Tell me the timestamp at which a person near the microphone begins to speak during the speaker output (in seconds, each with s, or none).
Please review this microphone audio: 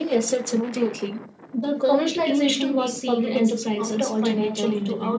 1.9 s